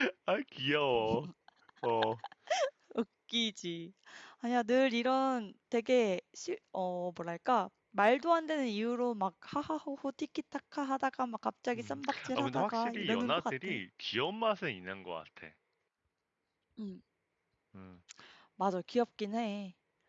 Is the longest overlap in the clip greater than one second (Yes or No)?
Yes